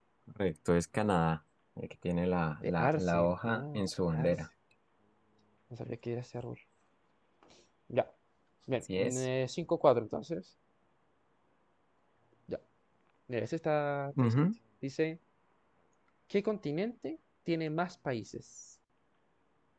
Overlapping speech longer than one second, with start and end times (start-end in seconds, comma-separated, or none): 2.6-4.3